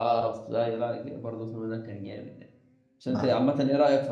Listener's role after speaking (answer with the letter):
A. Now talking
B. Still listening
B